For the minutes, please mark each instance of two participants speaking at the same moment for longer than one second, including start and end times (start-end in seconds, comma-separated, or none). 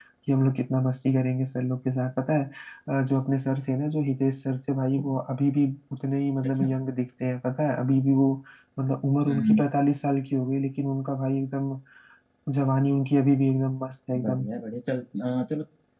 none